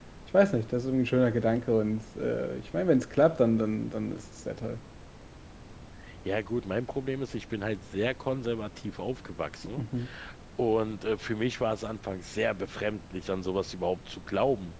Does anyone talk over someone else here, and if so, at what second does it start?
none

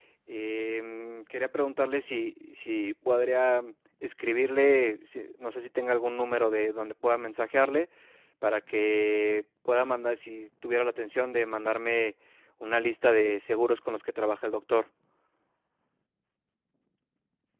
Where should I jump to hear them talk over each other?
none

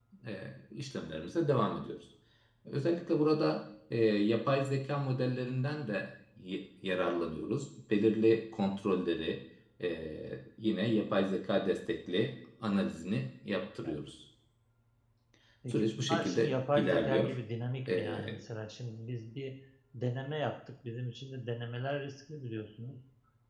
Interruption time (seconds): 15.7 s

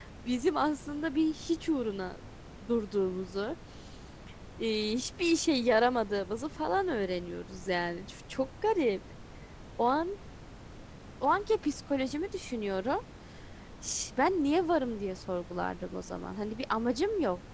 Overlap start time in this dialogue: none

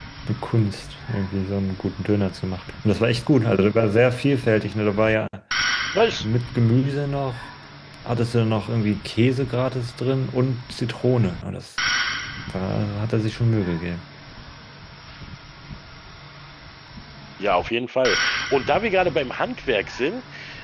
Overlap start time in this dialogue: none

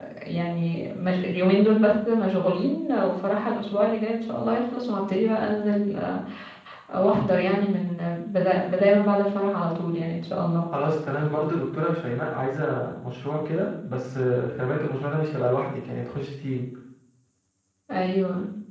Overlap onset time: none

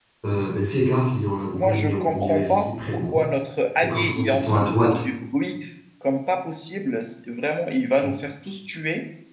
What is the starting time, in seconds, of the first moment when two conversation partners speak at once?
1.5 s

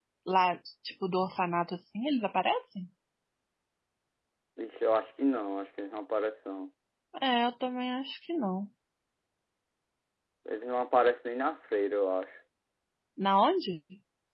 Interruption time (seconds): none

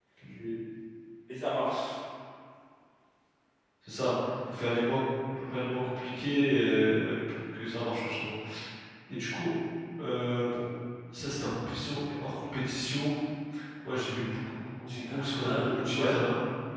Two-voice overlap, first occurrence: 14.9 s

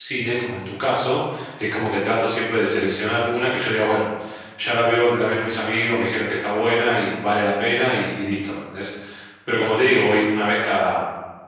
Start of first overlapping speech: none

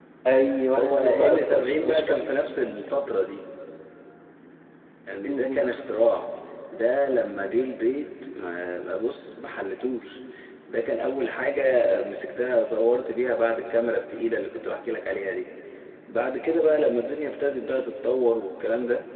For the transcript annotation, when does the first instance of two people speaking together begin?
0.8 s

